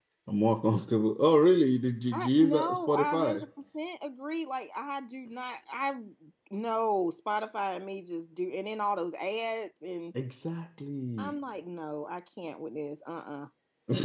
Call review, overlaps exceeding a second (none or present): present